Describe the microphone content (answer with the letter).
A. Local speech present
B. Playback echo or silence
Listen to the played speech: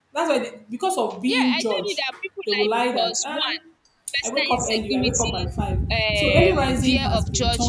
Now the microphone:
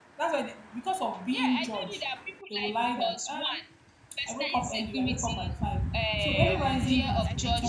A